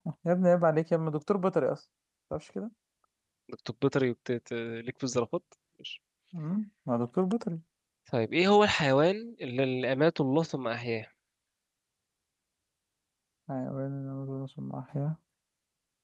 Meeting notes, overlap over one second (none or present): none